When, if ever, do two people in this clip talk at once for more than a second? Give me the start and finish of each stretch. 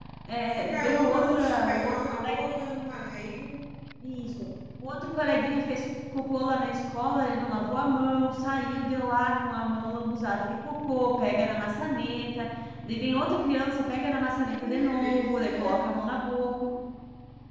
0.5-1.9, 14.6-15.8

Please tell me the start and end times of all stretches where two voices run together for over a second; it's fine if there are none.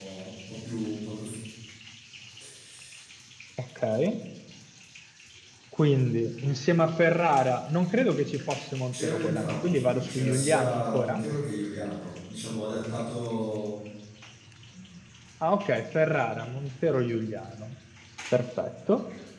8.9-11.2

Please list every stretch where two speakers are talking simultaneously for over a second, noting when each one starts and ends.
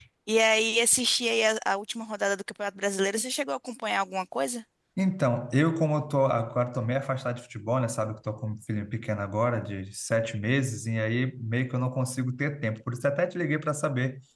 none

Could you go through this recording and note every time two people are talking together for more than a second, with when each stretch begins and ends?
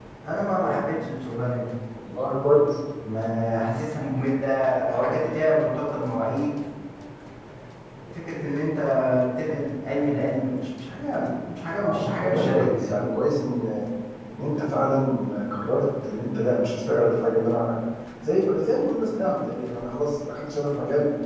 11.8-13.1

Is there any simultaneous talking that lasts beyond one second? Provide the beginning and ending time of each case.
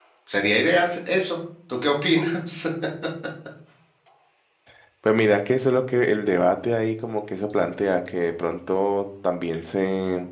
none

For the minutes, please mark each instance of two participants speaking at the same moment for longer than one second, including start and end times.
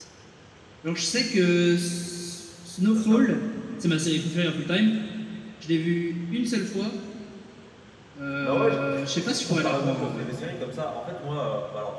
8.4-10.3

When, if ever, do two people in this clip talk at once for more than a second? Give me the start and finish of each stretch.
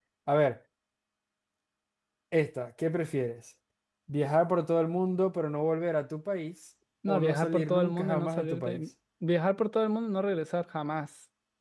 7.1-8.8

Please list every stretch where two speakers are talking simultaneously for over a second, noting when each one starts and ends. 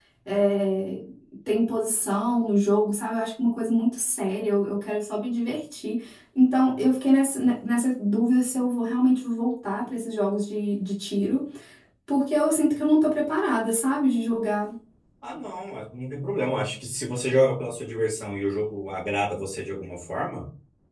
none

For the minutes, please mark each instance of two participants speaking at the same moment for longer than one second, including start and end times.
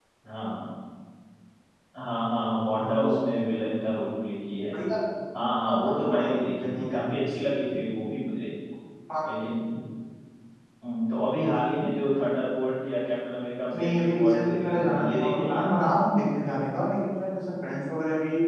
5.6-7.1, 13.8-15.7

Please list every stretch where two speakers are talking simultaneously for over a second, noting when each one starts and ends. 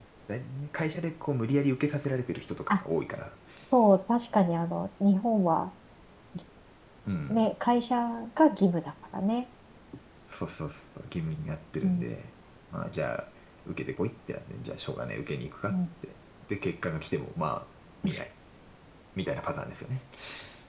none

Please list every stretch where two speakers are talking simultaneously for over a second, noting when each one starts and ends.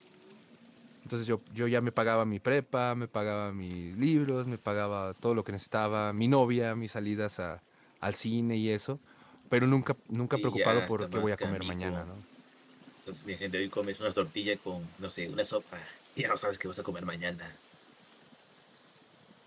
10.3-12.1

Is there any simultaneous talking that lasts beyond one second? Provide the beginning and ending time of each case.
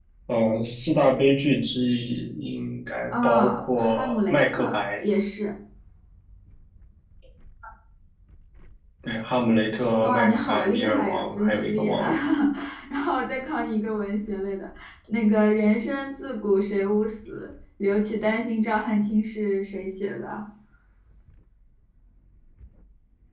3.1-4.8, 10.0-12.1

